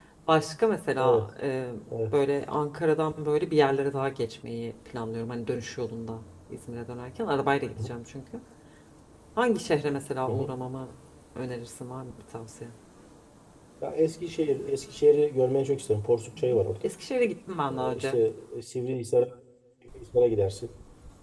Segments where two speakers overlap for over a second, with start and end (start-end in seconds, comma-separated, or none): none